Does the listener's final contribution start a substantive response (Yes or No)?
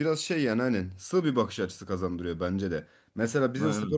No